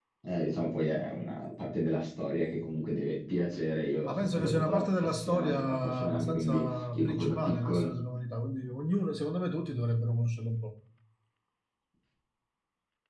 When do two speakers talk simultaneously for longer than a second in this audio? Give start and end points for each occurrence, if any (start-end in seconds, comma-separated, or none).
4.0-7.9